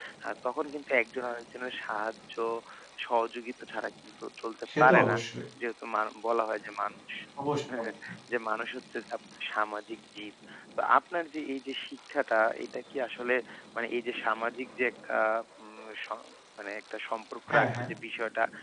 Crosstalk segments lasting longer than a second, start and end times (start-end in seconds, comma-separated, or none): none